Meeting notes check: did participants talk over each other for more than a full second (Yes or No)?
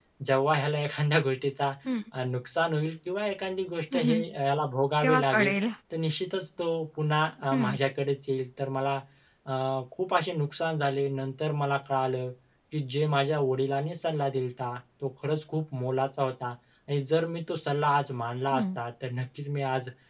No